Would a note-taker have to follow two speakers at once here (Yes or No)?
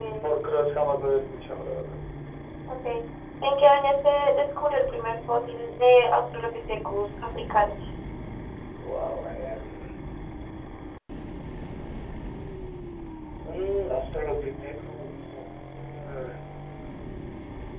No